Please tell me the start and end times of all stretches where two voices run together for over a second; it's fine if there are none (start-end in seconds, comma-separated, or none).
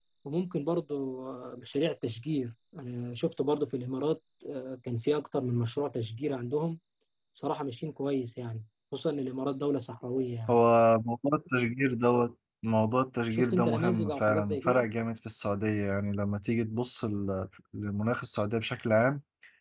13.3-14.8